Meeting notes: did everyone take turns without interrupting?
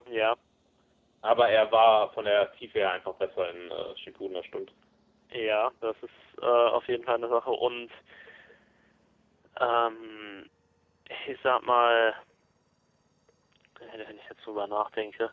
Yes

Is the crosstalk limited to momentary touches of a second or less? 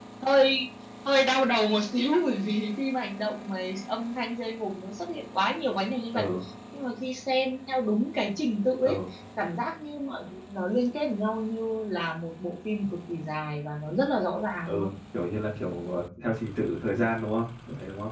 Yes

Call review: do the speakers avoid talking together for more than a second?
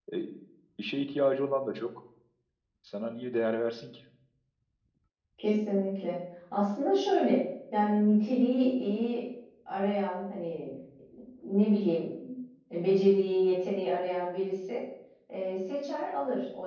Yes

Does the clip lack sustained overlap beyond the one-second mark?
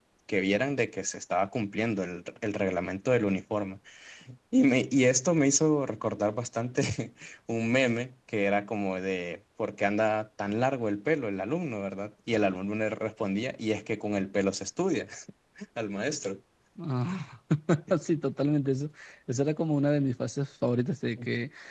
Yes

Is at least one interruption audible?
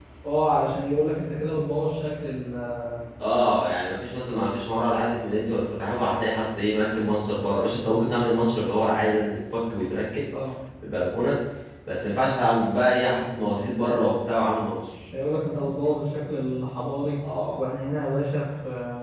No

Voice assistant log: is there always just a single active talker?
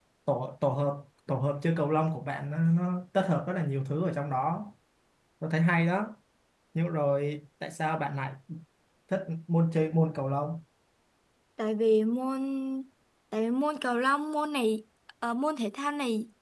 Yes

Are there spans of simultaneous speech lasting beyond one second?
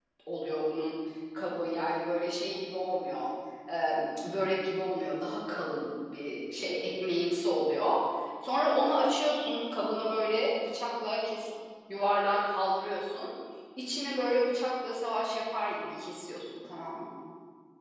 No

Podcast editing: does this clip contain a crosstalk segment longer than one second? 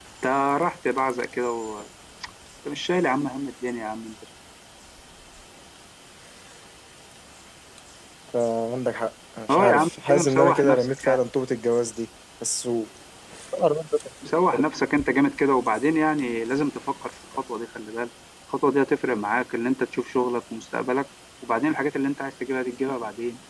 Yes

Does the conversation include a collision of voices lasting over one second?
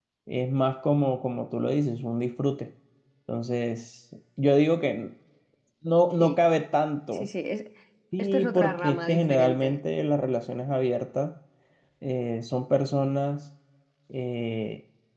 Yes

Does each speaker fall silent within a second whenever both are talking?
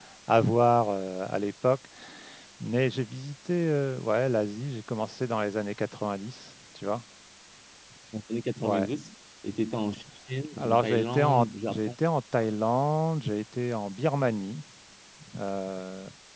No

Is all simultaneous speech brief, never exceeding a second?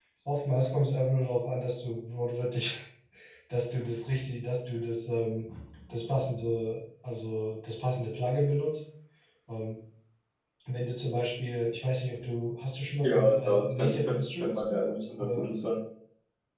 No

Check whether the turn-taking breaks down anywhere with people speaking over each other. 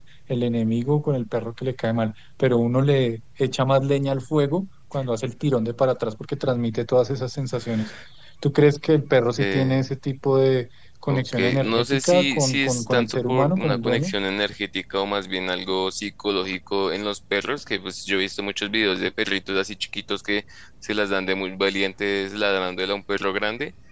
Yes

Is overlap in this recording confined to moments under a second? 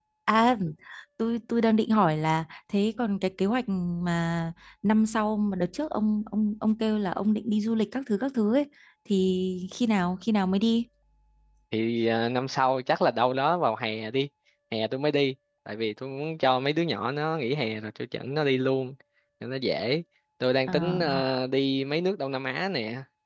Yes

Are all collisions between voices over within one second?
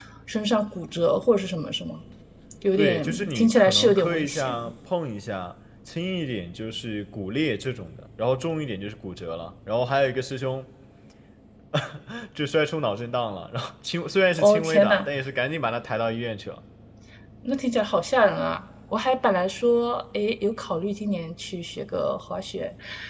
No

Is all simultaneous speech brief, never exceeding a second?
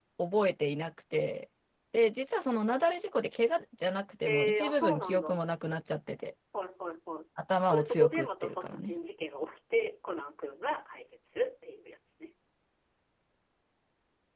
No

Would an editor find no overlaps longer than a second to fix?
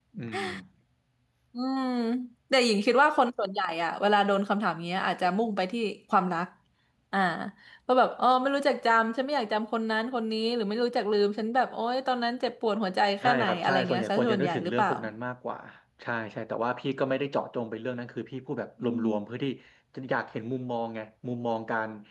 No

